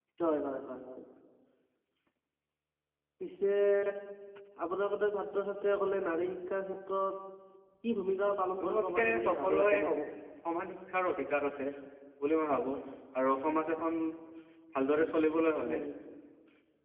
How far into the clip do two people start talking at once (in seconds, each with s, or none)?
8.6 s